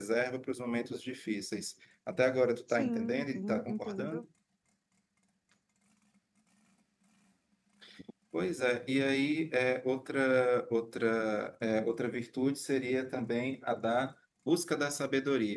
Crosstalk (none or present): present